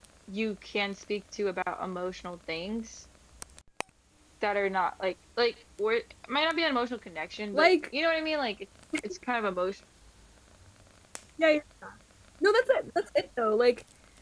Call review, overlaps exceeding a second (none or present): none